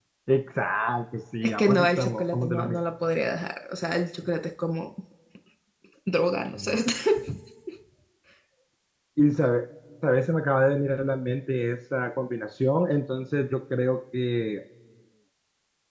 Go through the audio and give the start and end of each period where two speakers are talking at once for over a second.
1.4-2.8

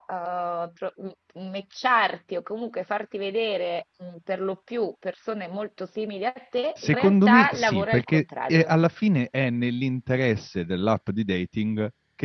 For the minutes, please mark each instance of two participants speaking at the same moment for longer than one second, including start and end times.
6.8-8.7

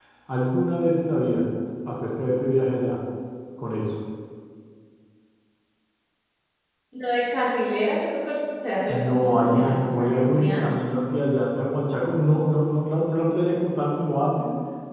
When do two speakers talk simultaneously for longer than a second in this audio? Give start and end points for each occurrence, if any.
8.9-10.7

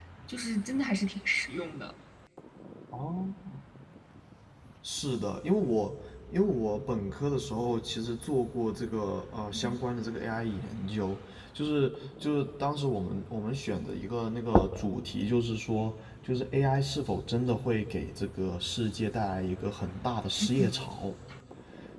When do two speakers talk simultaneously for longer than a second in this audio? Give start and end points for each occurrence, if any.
none

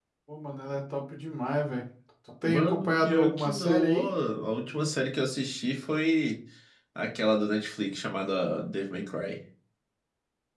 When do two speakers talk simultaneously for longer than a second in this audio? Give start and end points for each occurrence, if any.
2.4-4.0

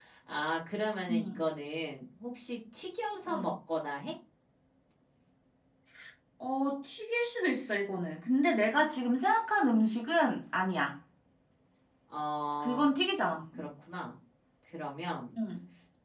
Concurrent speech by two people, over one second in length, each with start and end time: none

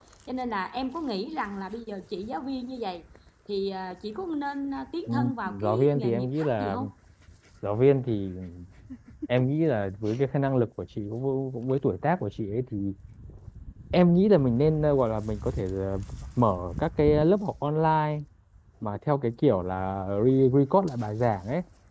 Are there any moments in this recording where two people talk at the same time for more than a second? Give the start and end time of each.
5.1-6.8

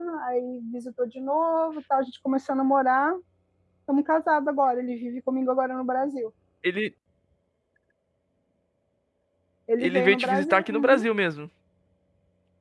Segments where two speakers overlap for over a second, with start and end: 9.8-11.1

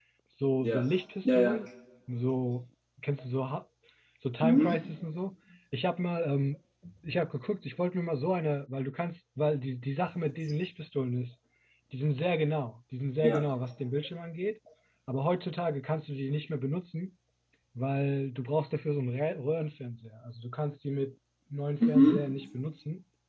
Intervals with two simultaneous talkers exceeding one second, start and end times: none

